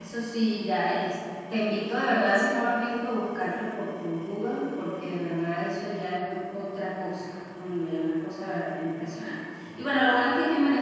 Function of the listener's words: listening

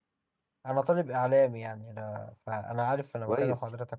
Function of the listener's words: taking over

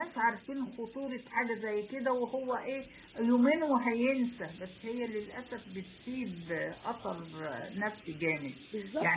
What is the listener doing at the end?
listening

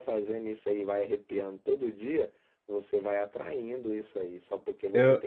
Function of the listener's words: listening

